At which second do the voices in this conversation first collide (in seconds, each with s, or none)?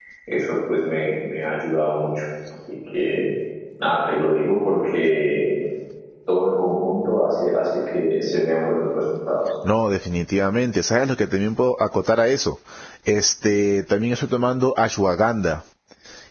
none